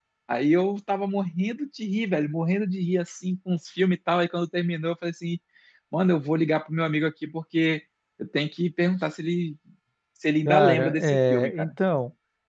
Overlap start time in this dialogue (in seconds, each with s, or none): 10.4 s